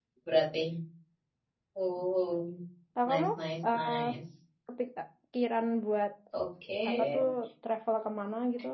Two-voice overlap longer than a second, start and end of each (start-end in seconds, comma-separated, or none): none